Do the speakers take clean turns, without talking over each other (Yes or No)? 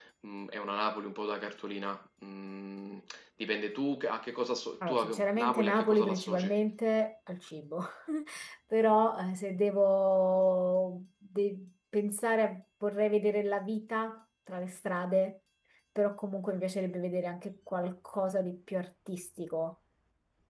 No